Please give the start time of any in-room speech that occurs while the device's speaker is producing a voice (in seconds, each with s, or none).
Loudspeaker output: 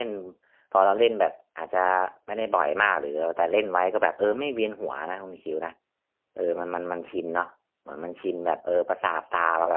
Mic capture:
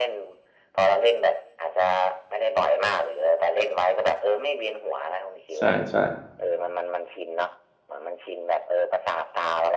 5.6 s